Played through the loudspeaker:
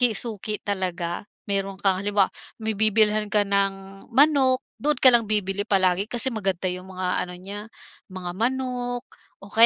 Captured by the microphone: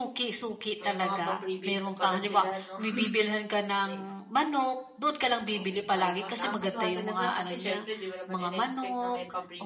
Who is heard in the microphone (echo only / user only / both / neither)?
both